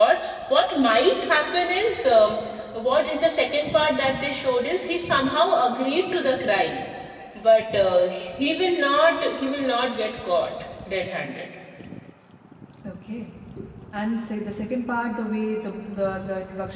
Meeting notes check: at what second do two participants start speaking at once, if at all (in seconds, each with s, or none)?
none